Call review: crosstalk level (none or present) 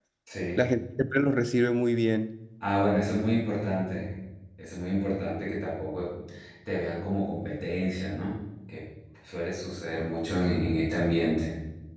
none